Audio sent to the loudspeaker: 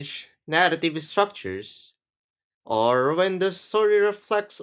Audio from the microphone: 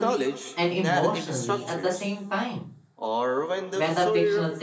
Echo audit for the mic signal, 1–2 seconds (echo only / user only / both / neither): both